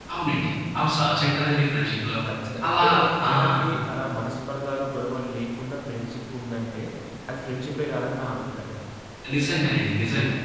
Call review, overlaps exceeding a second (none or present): none